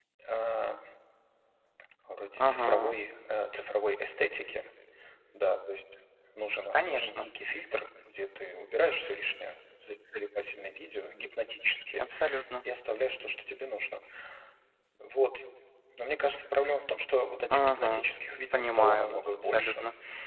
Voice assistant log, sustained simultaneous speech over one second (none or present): present